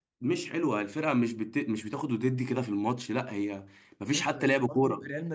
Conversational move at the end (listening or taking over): taking over